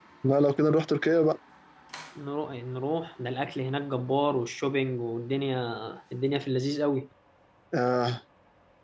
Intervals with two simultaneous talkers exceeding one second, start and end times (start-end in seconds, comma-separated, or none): none